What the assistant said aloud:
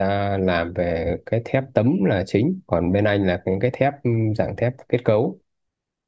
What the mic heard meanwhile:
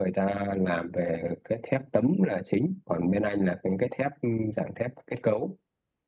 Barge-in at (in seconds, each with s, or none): none